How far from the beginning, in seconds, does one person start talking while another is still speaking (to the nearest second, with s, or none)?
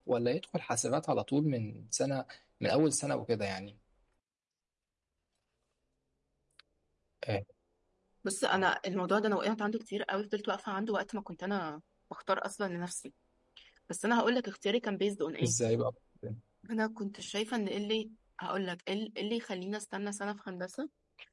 none